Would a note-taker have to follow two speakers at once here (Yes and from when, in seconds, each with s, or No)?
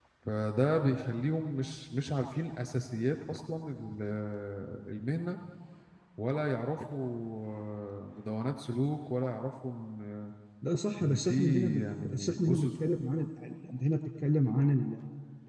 Yes, from 11.0 s